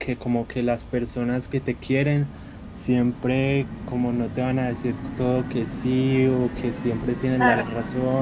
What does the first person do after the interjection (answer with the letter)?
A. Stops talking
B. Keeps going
B